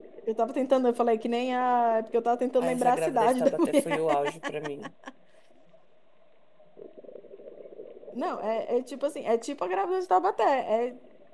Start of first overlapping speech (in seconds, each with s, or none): 2.6 s